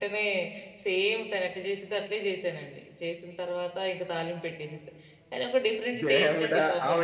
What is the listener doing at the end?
taking over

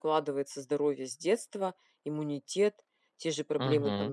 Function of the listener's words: listening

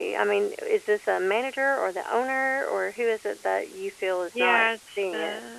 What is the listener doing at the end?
taking over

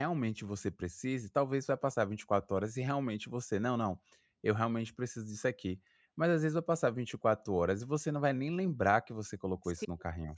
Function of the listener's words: taking over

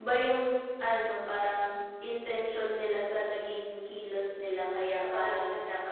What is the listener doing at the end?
listening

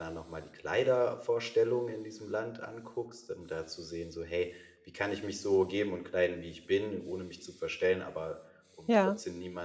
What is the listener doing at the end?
listening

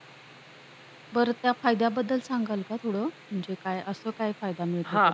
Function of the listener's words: taking over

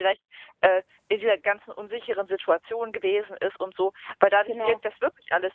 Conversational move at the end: listening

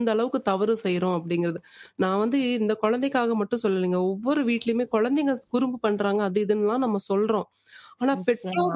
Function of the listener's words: listening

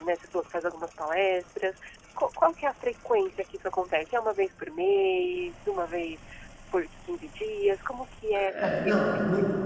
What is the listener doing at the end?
taking over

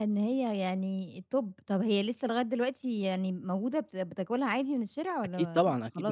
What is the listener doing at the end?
taking over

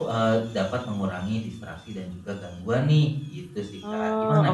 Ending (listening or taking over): taking over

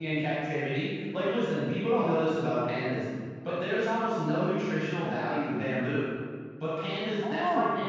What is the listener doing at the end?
listening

